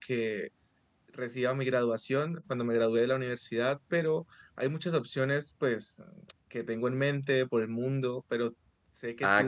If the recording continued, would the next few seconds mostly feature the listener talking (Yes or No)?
Yes